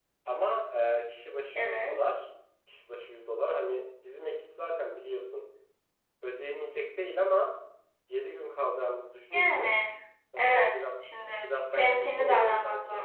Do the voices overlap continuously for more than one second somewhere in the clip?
Yes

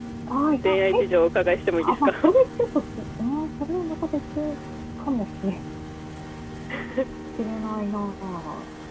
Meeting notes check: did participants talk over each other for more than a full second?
No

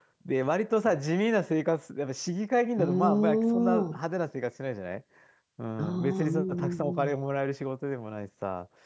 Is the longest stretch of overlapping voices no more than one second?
No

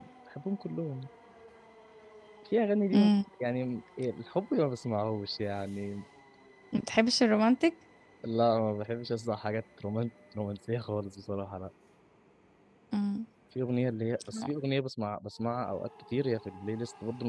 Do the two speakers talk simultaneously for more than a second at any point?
No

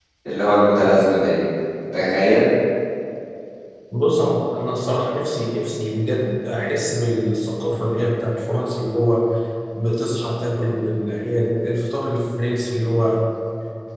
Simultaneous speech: No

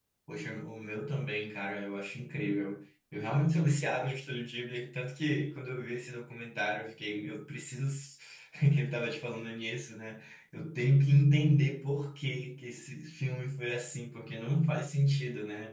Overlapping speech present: No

